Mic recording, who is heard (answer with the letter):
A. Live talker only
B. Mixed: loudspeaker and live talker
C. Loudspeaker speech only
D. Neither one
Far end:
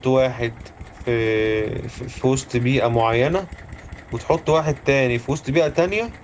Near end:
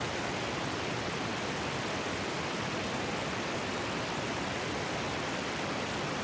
D